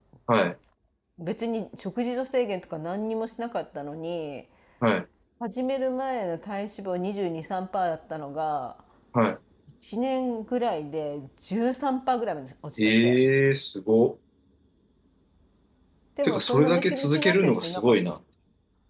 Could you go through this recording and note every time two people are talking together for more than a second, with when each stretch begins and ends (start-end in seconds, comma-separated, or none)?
16.2-18.2